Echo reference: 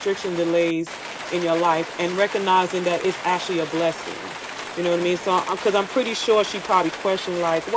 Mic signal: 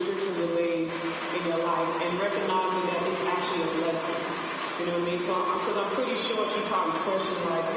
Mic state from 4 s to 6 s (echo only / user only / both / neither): echo only